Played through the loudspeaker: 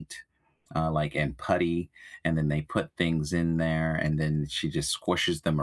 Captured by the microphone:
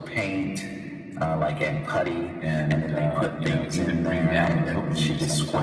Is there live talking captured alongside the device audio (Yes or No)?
Yes